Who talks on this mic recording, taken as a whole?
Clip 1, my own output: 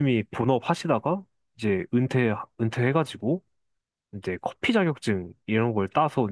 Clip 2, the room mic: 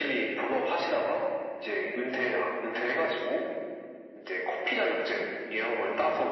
echo only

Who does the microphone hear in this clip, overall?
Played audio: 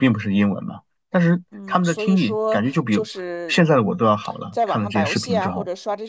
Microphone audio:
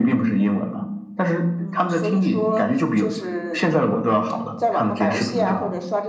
echo only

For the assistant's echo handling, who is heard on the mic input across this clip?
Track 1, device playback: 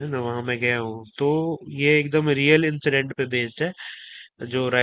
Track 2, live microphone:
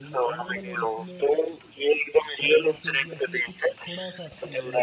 both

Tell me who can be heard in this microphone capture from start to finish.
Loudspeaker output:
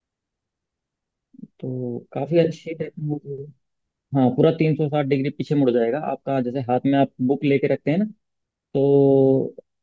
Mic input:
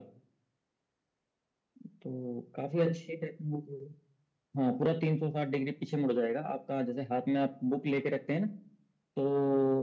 echo only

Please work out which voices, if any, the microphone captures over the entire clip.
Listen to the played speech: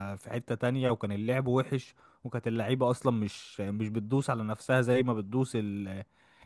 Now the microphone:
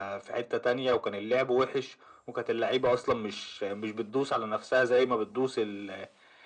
echo only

